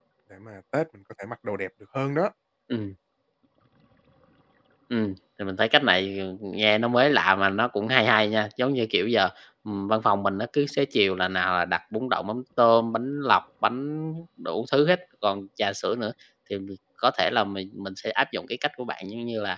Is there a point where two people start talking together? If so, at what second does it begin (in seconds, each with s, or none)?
none